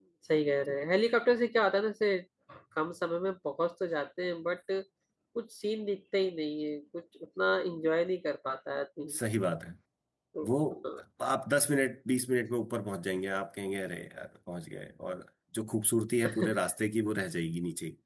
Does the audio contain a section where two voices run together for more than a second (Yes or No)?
No